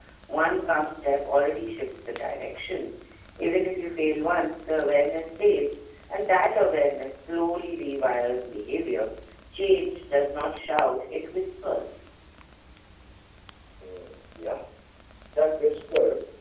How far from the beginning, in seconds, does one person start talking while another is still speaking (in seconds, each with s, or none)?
none